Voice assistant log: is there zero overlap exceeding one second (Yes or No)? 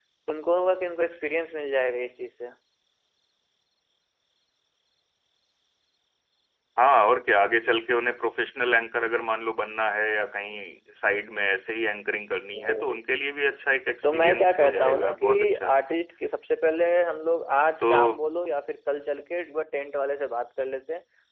No